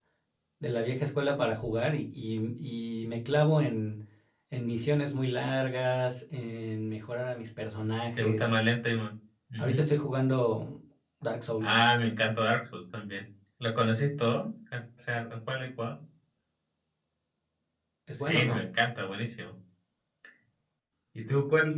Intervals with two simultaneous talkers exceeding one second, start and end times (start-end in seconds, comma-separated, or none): none